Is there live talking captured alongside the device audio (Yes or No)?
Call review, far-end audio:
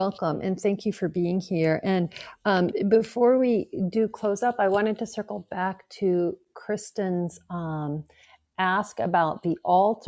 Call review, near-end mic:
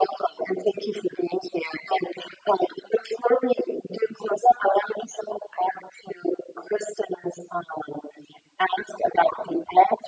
No